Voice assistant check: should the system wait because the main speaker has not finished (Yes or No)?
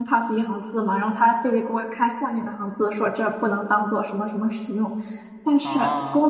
Yes